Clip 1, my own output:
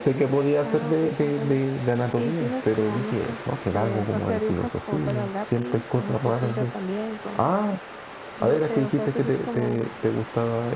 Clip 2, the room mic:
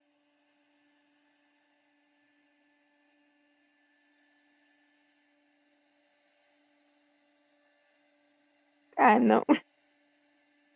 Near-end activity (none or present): present